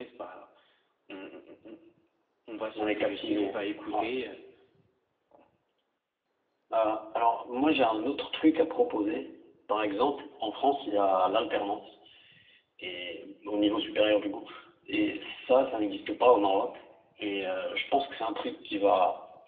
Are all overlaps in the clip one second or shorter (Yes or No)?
No